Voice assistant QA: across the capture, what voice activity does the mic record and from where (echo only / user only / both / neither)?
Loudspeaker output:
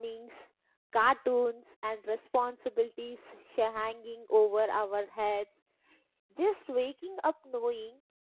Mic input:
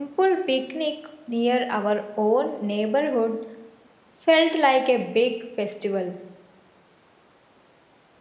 user only